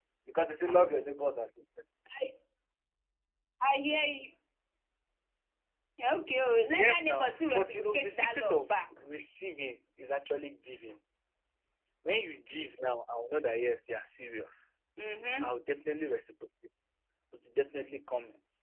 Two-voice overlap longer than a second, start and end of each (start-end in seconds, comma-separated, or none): 6.8-8.7